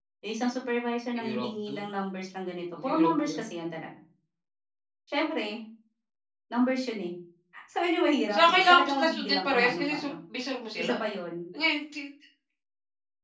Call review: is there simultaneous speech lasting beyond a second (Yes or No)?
Yes